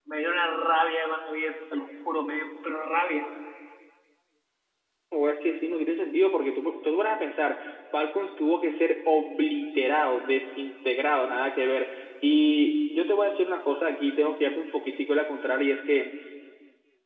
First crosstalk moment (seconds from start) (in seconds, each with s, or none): none